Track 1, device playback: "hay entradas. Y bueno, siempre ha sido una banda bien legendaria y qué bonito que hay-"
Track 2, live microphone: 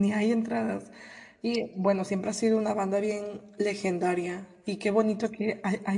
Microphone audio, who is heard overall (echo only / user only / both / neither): echo only